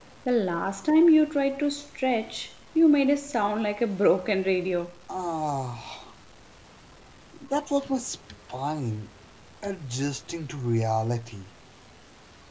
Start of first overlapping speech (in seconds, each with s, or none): none